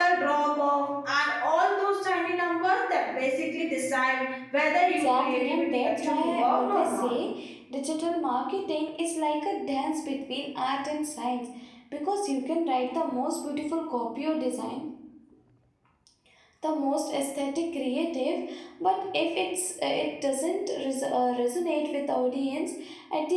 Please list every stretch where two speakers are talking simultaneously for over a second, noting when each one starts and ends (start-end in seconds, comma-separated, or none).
4.8-7.1